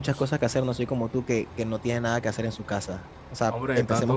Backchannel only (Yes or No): No